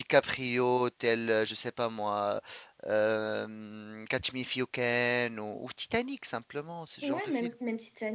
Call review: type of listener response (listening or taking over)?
taking over